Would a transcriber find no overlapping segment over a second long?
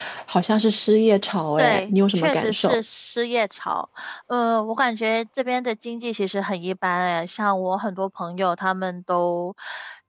No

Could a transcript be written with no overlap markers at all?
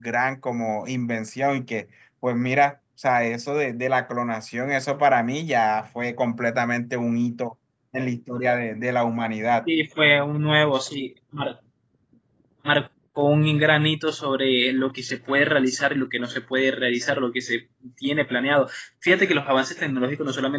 Yes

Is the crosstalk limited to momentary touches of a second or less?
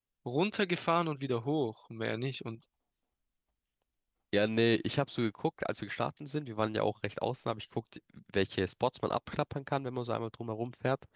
Yes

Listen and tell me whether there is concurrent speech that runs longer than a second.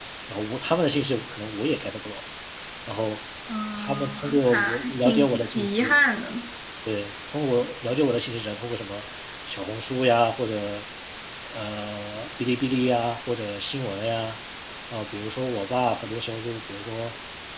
Yes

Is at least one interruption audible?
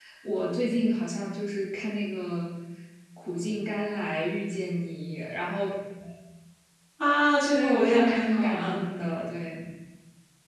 Yes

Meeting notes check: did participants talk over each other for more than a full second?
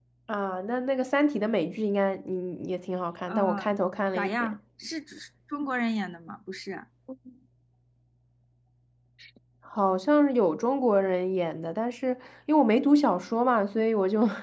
Yes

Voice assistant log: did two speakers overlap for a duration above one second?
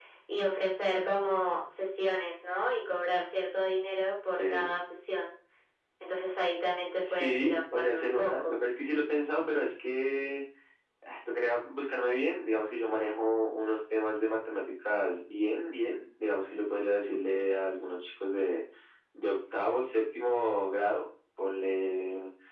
Yes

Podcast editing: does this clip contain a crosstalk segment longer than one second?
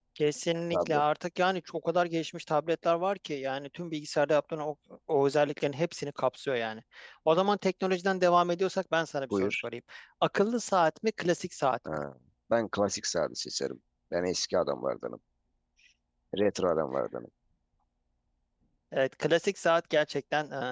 No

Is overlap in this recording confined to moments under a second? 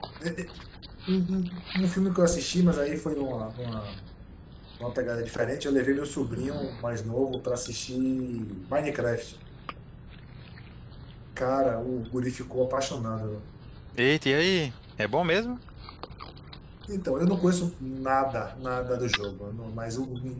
Yes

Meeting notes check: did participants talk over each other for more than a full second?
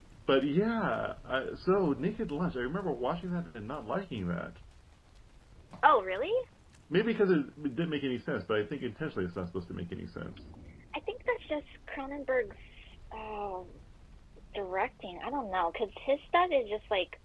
No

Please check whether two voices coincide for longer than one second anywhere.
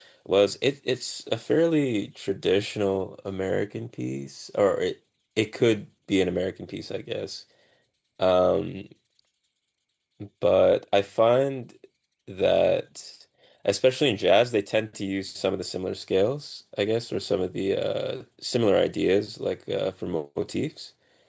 No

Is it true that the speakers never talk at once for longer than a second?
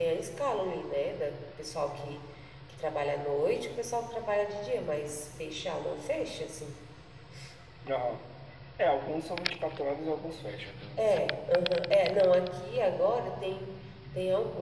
Yes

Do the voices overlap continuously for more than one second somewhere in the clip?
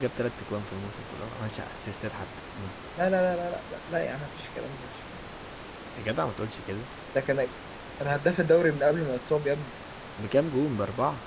No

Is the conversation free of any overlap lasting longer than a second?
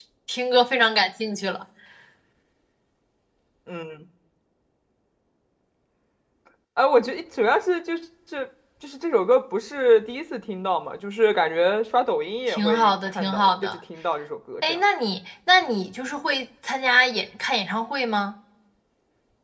No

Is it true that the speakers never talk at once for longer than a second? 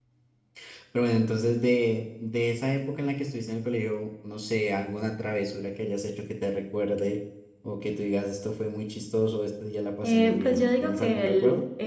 No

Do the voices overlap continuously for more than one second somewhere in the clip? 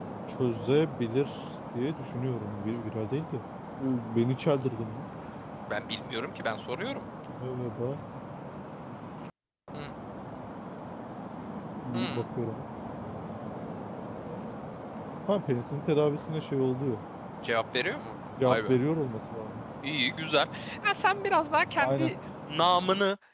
No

